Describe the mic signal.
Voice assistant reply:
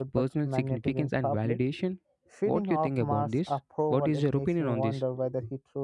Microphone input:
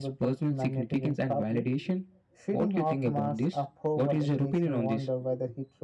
echo only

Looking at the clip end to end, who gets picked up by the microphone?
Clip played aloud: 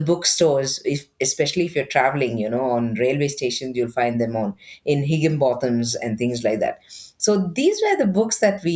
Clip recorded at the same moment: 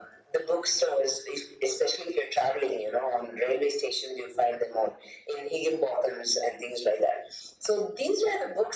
echo only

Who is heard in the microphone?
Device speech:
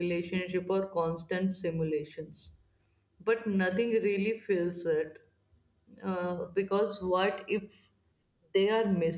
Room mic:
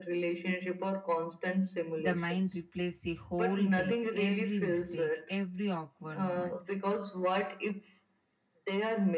both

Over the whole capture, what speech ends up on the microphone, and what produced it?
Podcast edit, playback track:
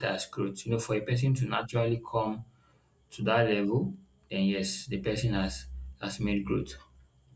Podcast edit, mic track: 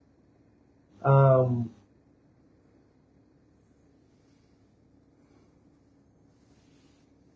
user only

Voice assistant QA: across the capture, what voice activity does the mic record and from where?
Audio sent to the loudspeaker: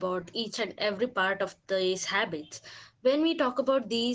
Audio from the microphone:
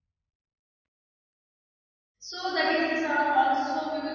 user only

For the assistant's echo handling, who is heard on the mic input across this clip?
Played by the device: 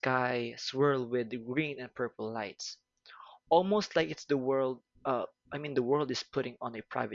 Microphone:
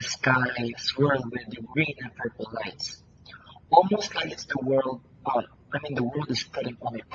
echo only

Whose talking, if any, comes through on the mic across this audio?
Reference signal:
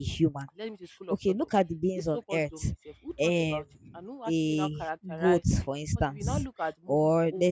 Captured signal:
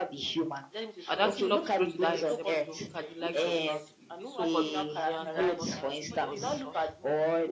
both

